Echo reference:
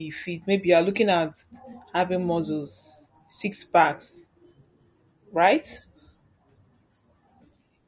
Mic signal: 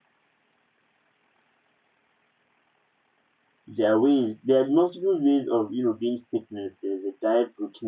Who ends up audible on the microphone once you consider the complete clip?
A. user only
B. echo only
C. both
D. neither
A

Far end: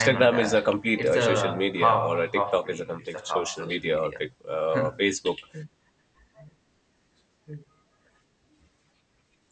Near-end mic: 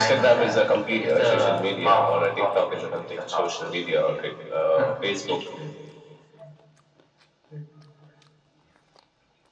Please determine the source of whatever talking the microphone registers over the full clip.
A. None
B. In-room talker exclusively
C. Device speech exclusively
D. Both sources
C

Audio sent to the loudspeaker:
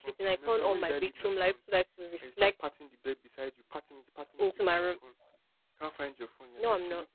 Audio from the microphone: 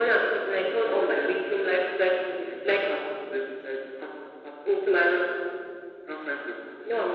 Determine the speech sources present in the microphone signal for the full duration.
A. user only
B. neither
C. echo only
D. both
C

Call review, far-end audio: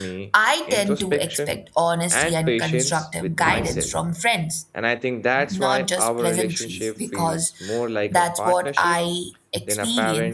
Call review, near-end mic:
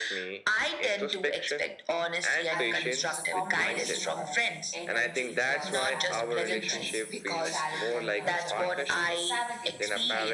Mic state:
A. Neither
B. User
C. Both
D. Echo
C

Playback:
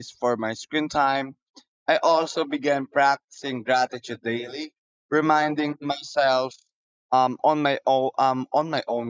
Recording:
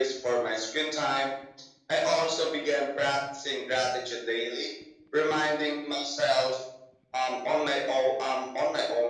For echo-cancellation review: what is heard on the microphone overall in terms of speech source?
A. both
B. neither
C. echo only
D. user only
C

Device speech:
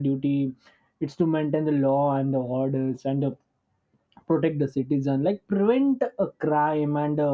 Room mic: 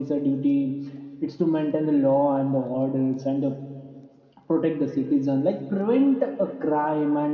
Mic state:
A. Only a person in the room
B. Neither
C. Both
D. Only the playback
D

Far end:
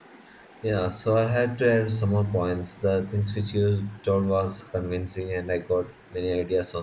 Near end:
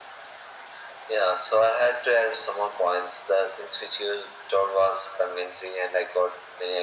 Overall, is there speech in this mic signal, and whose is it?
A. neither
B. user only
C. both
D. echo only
D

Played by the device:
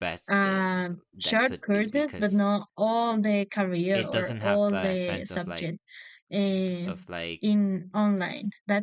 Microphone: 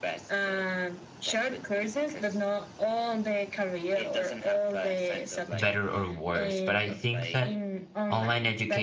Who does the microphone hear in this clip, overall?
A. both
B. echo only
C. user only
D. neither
A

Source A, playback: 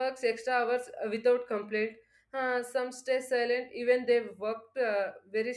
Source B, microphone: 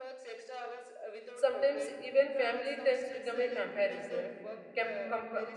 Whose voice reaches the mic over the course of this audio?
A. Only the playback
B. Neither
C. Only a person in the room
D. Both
D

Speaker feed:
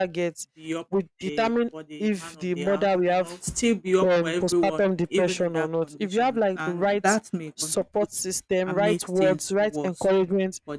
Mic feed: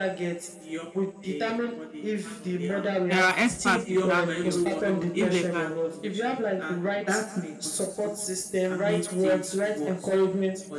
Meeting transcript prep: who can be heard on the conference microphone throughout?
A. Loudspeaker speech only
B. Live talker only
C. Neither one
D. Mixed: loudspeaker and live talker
D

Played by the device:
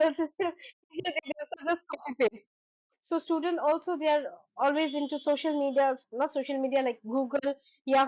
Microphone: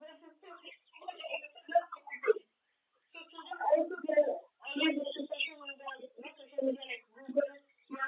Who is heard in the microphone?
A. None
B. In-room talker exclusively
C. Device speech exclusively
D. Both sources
C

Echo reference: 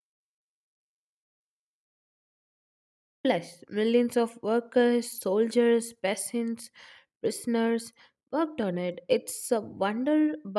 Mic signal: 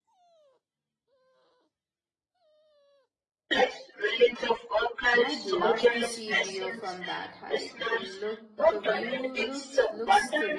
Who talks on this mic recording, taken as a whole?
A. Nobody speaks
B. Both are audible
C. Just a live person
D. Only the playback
B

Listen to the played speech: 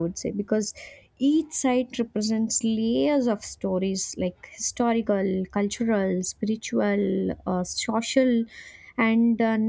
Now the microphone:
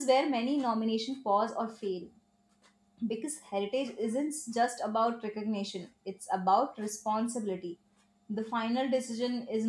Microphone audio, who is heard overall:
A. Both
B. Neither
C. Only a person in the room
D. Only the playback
C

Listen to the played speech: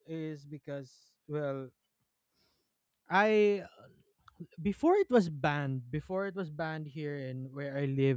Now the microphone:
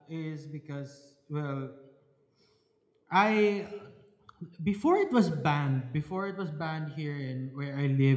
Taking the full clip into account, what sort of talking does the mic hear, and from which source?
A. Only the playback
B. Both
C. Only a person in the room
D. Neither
A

